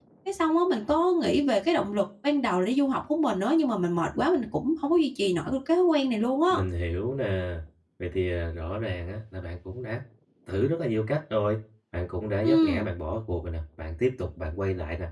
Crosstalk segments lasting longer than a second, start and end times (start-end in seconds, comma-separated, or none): none